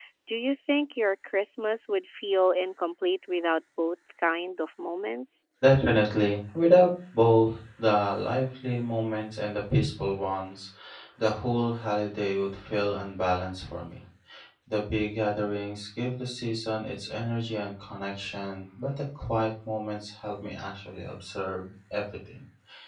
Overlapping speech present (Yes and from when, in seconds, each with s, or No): No